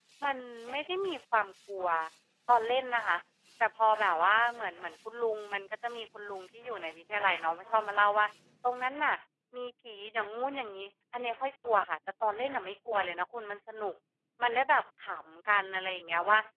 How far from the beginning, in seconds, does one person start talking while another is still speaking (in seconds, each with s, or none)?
none